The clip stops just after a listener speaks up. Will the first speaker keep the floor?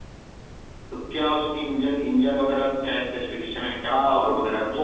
No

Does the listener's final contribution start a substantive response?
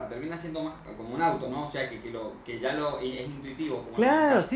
Yes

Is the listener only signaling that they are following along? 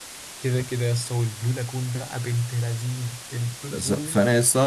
No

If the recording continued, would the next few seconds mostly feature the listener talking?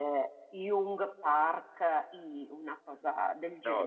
Yes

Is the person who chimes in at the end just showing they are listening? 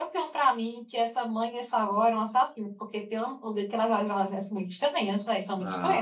No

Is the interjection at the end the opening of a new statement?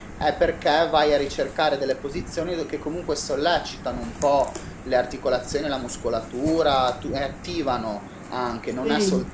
No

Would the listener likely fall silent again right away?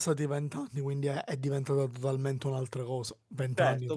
No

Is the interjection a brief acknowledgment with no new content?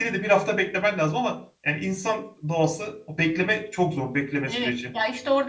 No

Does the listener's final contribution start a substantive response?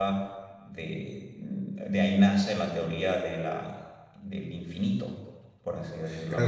Yes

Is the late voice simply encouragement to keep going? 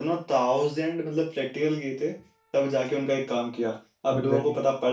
Yes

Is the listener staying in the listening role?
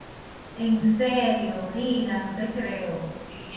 No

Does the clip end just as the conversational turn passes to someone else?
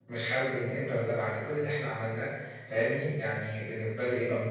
Yes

